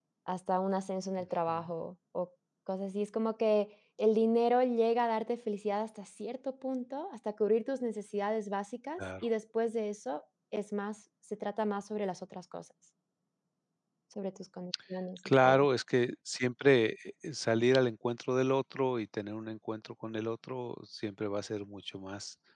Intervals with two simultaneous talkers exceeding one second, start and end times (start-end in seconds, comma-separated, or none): none